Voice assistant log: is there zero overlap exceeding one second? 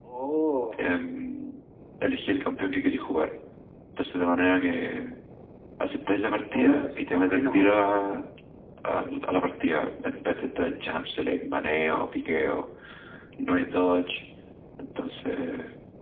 No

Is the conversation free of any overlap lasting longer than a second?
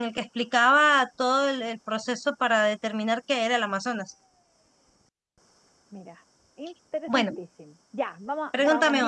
Yes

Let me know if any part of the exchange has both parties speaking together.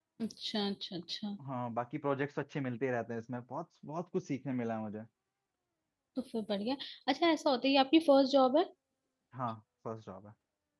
No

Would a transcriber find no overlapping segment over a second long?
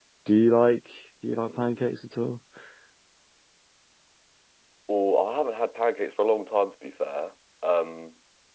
Yes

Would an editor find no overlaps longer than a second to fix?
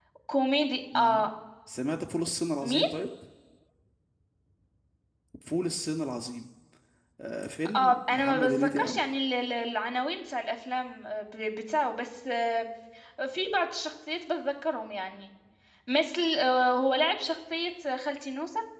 No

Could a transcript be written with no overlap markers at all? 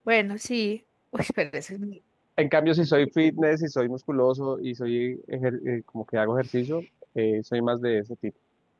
Yes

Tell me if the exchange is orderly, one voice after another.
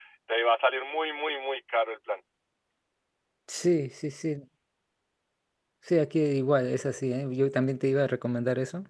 Yes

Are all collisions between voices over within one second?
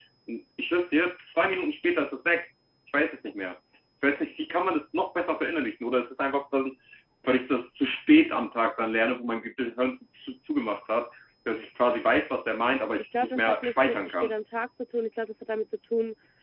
No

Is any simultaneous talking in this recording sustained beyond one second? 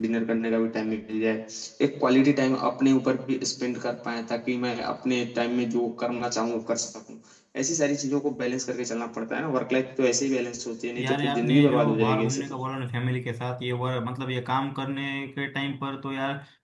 Yes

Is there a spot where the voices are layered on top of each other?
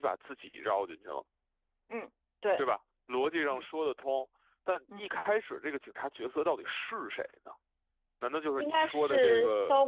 Yes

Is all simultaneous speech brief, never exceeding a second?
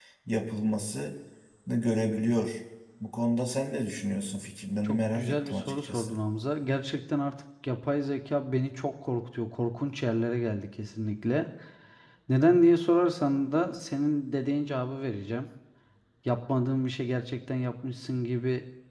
No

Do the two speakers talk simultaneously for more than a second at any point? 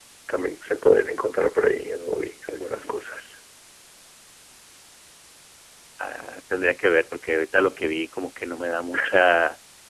No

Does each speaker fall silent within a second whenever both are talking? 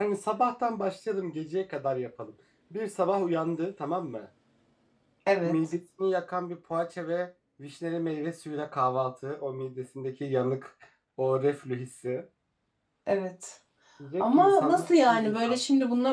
No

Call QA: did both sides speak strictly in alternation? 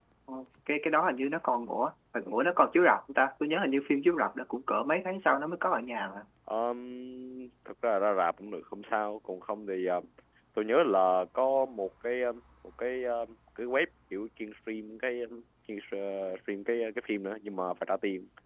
Yes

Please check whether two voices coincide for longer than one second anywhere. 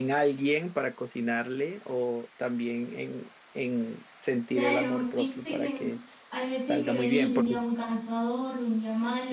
Yes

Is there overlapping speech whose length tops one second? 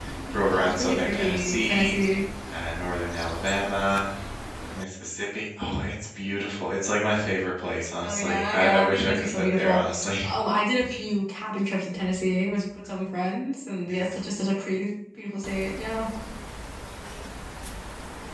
Yes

